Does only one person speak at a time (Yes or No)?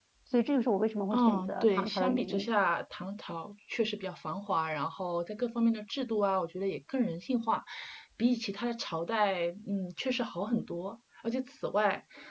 No